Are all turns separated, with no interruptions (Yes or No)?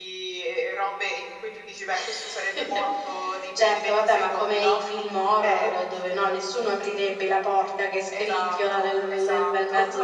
No